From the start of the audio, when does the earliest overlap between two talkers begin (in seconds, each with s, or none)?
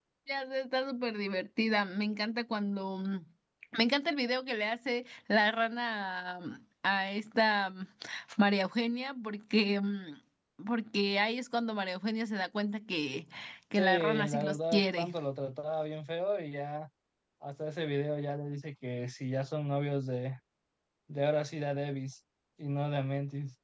13.8 s